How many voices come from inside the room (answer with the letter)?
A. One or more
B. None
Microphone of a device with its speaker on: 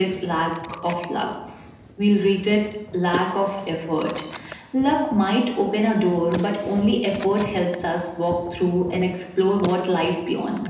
B